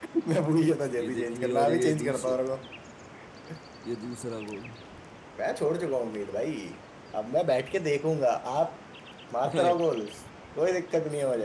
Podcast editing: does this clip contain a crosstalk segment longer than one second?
Yes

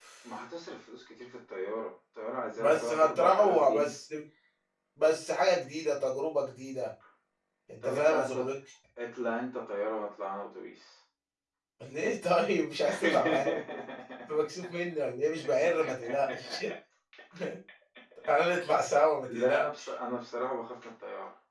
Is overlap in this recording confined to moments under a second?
No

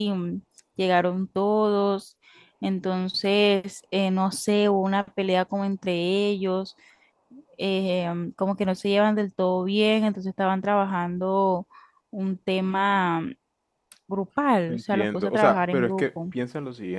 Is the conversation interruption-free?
No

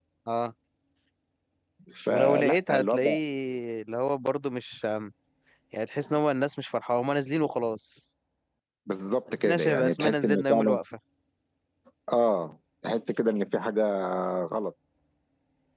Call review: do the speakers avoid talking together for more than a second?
No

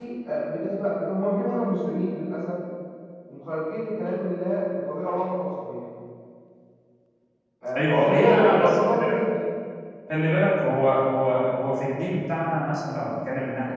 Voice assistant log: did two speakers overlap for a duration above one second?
Yes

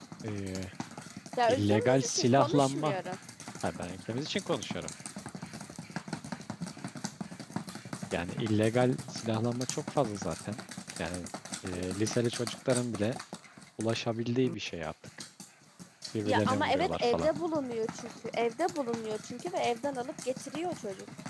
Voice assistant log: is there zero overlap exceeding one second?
No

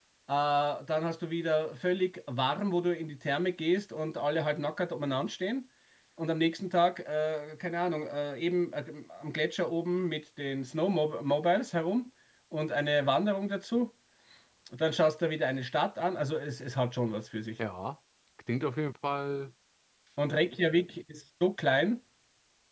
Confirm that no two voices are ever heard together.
Yes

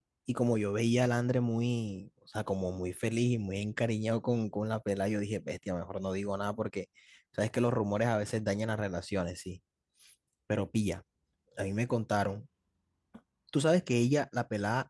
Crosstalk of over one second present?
No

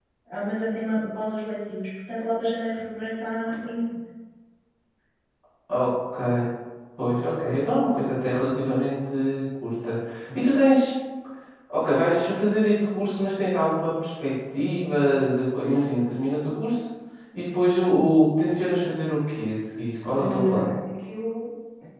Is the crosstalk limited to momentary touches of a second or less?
Yes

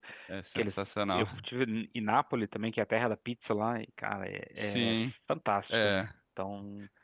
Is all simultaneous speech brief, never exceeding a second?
Yes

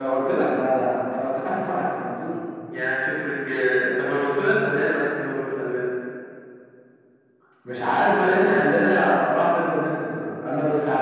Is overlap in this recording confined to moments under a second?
Yes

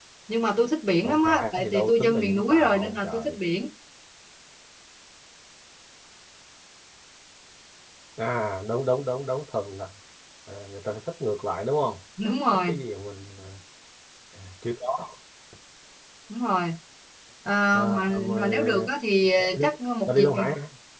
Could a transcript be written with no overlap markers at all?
No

